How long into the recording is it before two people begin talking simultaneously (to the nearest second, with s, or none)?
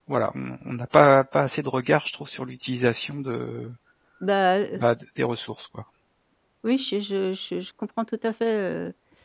none